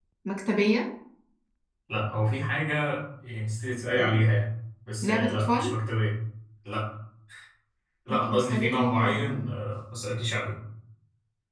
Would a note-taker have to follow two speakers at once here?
Yes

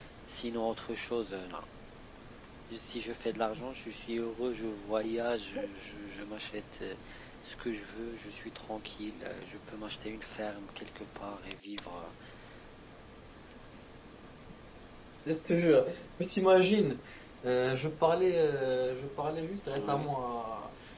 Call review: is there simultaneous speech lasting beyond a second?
No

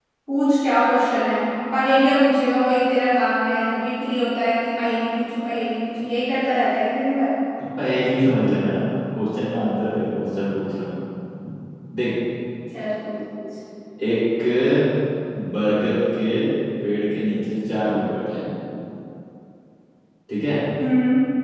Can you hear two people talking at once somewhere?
No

